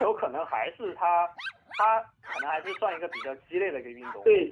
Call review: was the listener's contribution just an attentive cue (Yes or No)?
No